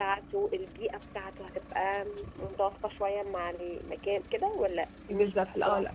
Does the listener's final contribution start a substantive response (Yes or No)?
Yes